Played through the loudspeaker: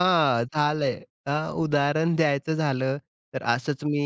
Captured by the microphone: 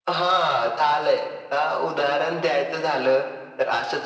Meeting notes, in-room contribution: none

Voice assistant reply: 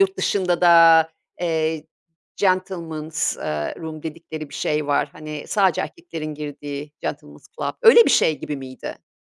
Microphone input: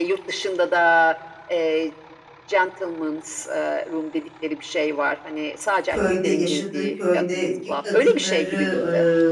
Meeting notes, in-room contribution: present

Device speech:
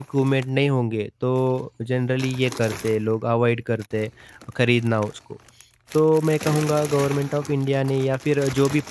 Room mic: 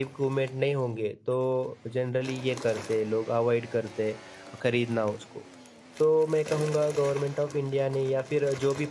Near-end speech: none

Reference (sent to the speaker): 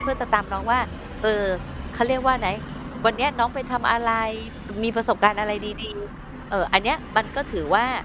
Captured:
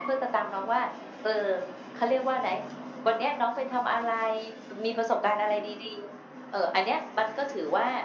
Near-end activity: none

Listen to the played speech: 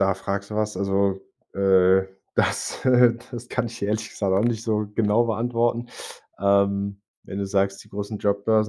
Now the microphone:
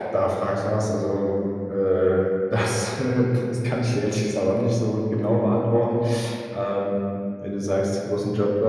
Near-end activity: none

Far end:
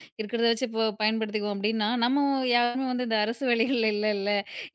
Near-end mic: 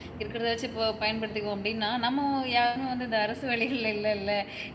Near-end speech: none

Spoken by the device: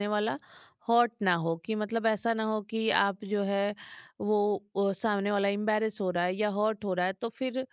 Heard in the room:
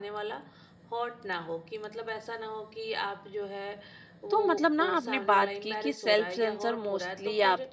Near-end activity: present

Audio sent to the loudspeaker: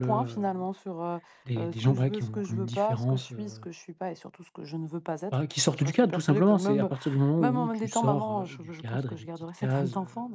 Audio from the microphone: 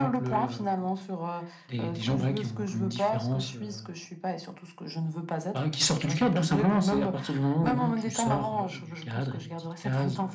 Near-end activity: none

